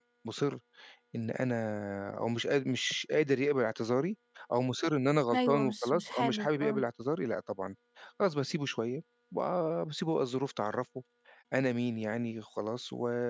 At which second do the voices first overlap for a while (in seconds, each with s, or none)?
5.3 s